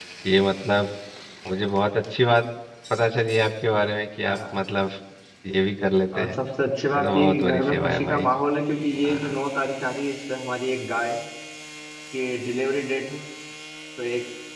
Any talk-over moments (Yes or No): Yes